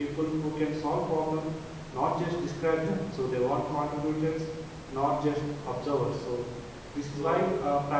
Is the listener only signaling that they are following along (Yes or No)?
Yes